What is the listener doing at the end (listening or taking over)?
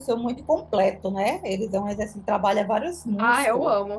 taking over